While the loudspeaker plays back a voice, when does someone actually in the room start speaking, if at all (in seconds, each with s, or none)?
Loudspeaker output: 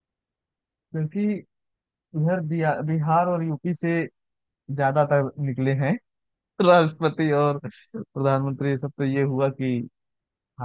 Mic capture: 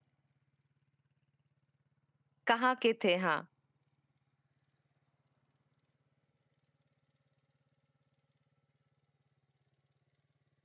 2.5 s